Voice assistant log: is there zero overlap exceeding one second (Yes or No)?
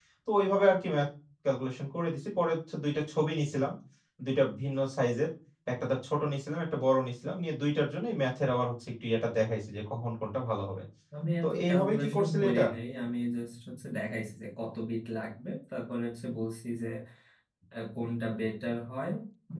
No